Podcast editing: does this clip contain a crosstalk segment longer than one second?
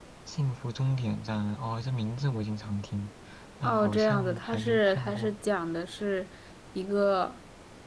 Yes, from 3.6 s

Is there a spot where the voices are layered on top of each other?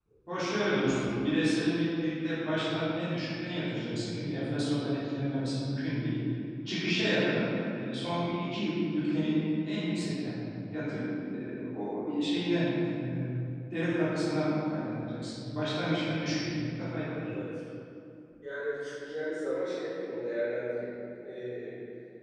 No

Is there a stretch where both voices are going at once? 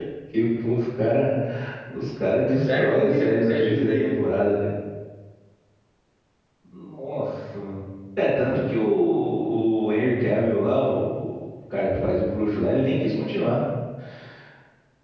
Yes, from 2.6 s

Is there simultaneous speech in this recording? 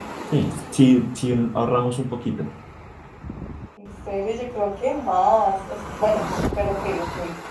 No

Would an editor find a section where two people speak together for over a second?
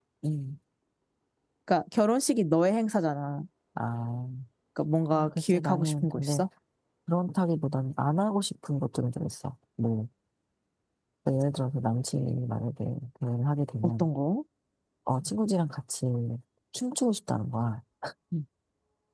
Yes, from 5.1 s

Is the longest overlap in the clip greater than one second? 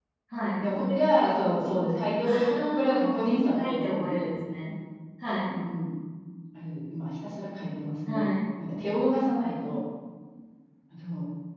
Yes, from 2.2 s

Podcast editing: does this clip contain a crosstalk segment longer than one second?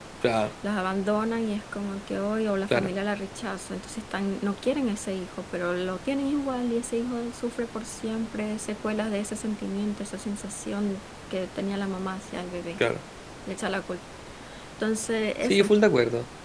No

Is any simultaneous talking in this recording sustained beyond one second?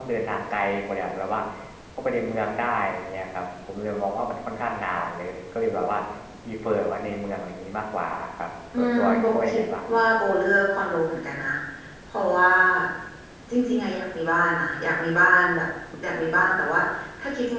Yes, from 8.7 s

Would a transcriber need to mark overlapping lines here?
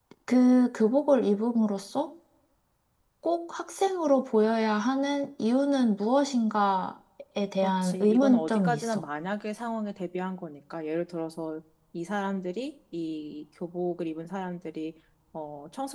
Yes, from 7.6 s

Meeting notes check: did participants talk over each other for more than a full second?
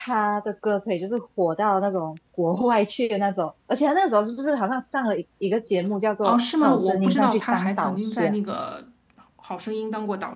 Yes, from 6.2 s

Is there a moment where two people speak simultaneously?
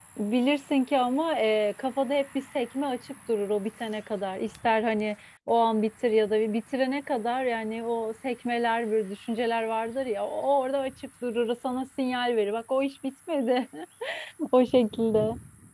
No

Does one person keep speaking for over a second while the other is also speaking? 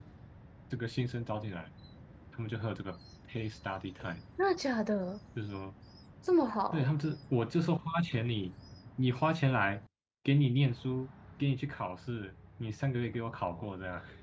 No

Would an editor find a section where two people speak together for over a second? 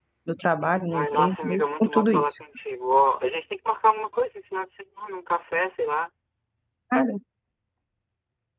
Yes, from 0.9 s

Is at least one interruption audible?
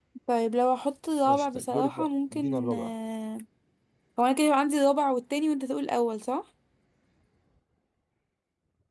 Yes, from 1.2 s

